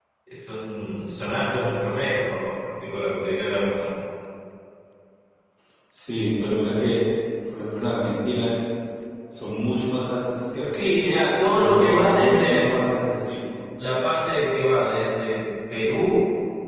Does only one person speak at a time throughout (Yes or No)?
No